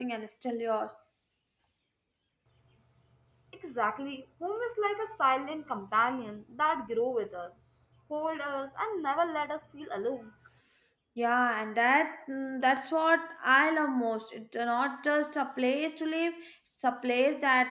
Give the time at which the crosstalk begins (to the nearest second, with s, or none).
none